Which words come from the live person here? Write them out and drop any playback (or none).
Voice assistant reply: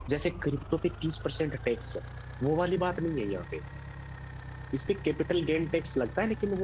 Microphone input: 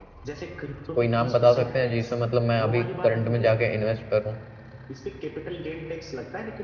कोई नाम बता सकते हैं जिसमें मतलब मैं अभी करंट में जाके इन्वेस्ट करूं